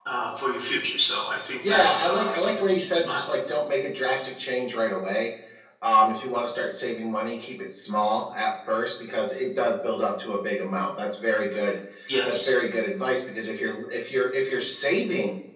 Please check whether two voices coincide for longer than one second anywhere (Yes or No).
Yes